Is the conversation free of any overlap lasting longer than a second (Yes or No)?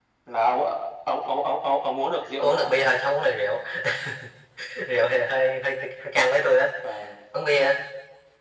Yes